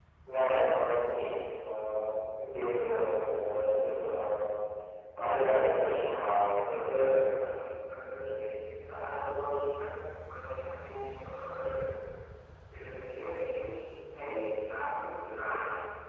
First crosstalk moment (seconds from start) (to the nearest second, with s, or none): 5 s